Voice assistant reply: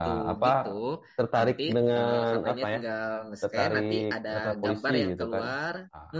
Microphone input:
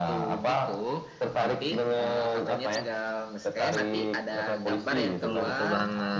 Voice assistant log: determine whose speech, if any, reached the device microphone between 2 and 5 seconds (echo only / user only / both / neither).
echo only